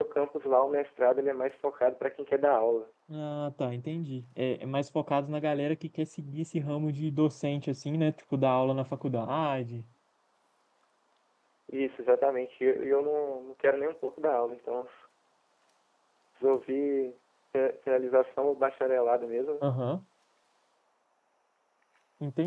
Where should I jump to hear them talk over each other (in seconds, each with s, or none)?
none